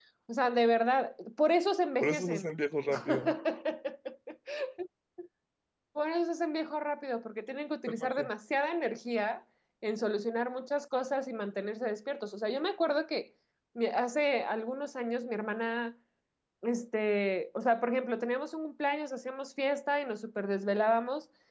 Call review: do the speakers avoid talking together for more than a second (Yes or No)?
Yes